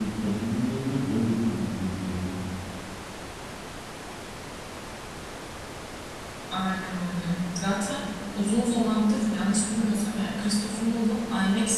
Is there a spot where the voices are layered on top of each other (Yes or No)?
No